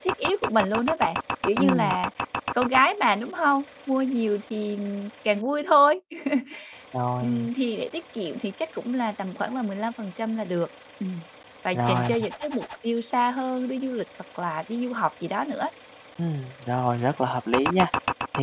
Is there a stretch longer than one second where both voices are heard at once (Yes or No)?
No